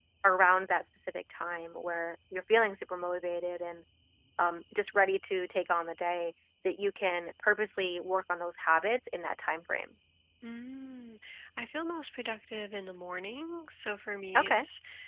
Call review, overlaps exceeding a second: none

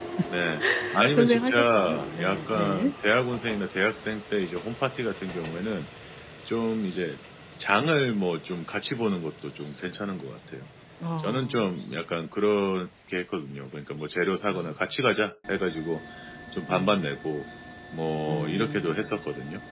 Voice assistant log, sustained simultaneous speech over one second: present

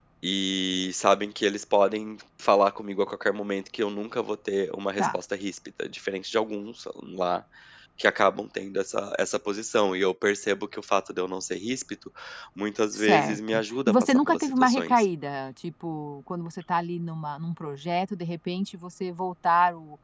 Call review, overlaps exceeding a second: present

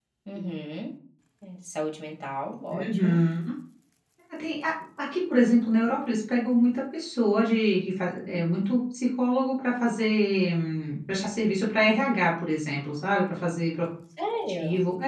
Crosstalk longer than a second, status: none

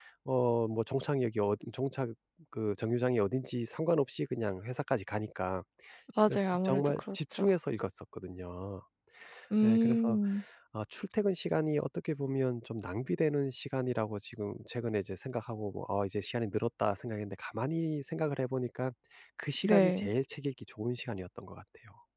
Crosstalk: present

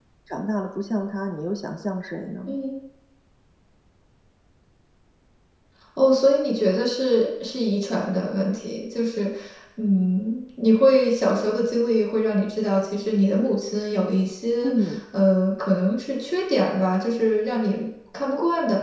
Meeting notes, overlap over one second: none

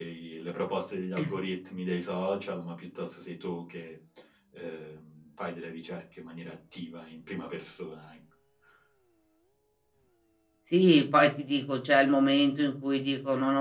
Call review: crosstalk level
none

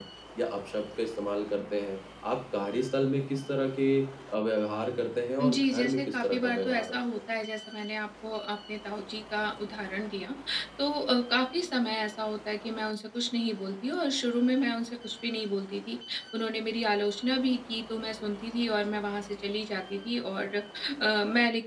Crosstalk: present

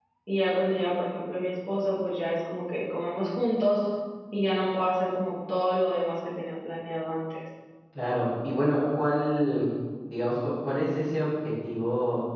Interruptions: none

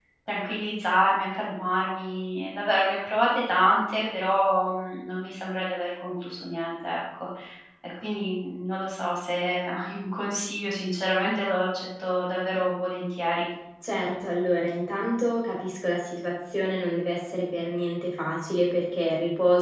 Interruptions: none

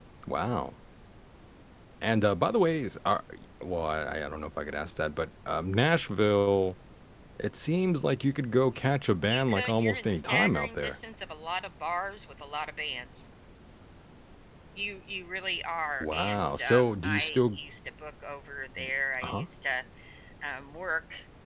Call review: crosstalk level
present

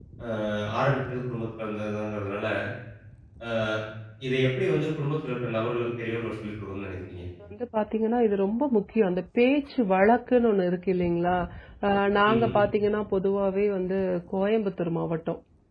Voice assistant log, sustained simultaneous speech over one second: none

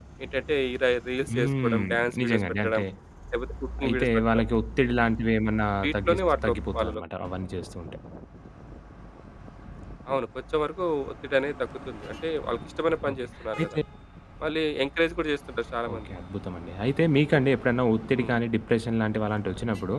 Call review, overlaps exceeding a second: present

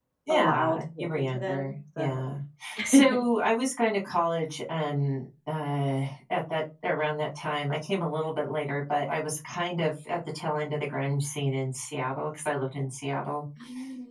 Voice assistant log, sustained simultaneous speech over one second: present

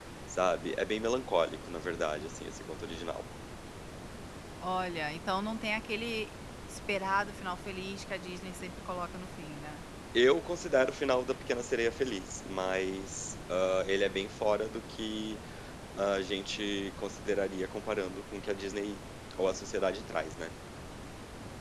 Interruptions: none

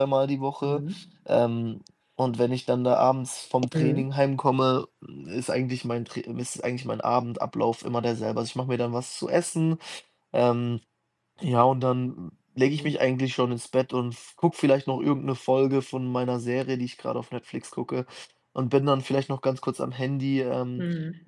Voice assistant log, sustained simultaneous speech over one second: none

